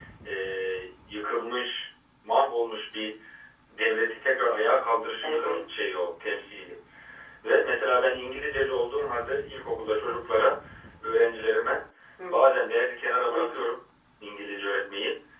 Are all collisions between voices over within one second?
Yes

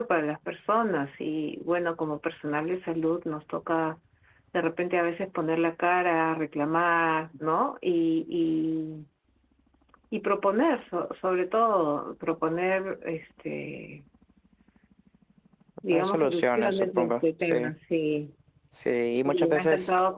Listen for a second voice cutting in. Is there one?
Yes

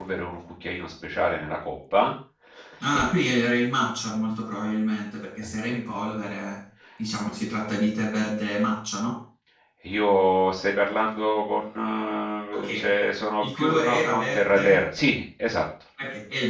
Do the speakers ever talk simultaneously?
Yes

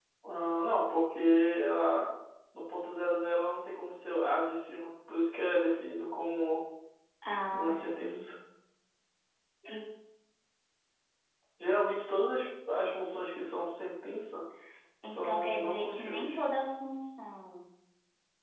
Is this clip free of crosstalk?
No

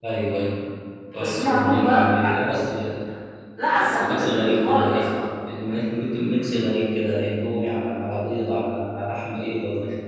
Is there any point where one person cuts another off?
Yes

